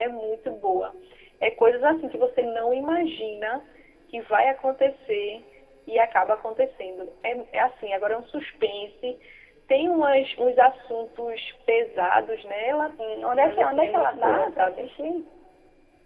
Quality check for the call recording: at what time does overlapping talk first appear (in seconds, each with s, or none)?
13.3 s